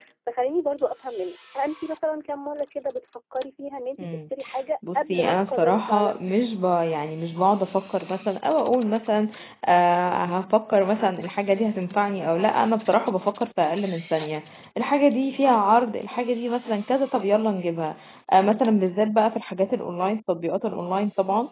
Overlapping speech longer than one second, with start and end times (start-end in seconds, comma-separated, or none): 5.0-6.2